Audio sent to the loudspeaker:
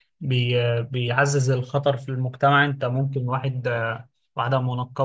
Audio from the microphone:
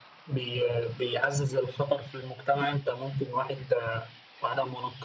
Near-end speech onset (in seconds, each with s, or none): none